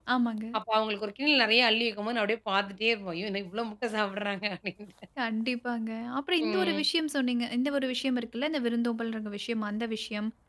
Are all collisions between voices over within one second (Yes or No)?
Yes